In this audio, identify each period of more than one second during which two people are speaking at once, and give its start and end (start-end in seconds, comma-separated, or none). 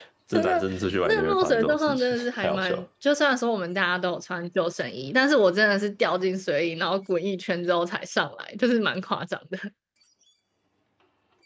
1.0-2.9